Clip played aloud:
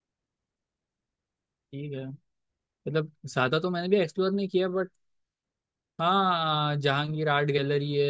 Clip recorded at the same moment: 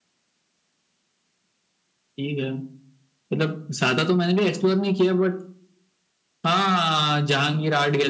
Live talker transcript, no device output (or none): none